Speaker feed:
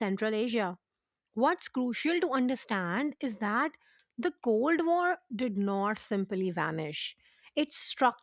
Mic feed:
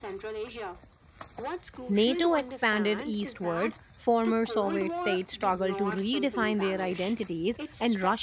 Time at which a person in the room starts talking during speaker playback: 1.9 s

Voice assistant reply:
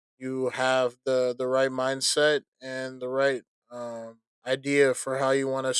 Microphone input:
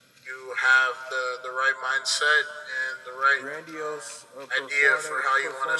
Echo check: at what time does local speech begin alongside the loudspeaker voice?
3.3 s

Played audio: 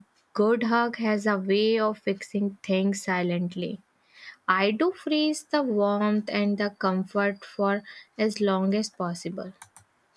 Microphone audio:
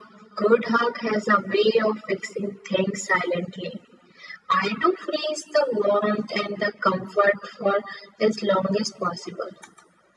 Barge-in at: none

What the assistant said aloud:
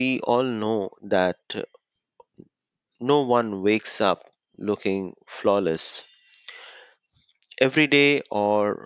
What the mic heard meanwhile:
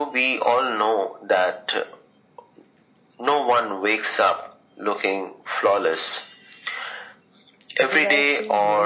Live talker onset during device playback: 7.8 s

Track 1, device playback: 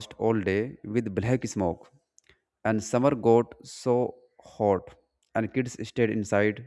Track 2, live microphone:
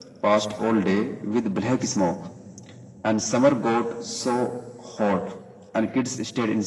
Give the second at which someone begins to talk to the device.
none

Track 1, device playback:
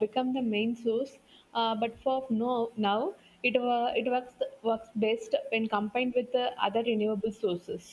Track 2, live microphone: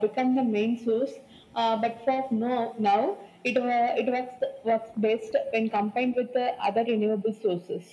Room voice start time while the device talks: none

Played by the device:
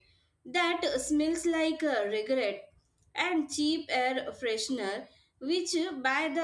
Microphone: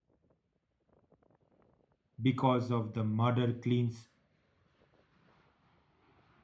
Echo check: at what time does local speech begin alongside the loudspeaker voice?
2.2 s

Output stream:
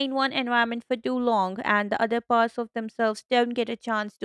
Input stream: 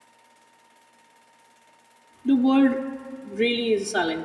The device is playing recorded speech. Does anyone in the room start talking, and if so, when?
2.2 s

